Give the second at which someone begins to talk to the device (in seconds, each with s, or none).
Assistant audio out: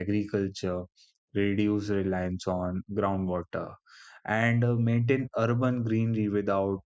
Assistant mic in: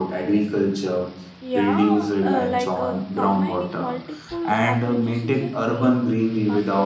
1.4 s